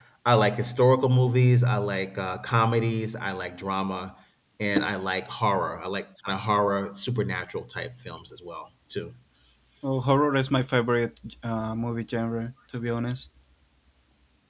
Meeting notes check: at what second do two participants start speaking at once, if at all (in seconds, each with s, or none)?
none